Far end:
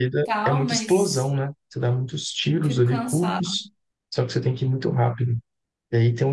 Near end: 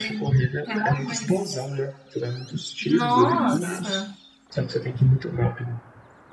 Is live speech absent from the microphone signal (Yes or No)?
No